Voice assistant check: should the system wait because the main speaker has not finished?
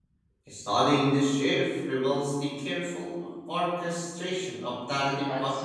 No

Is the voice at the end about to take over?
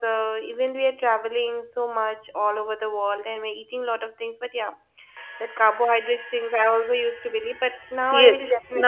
Yes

